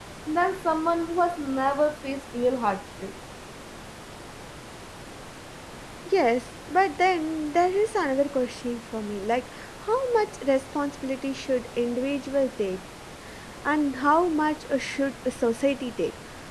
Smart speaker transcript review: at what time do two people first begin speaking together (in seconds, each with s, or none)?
none